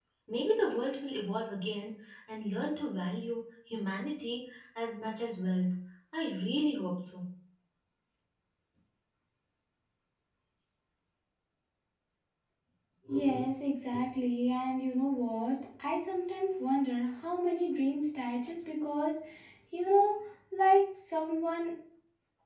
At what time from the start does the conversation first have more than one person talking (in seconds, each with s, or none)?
none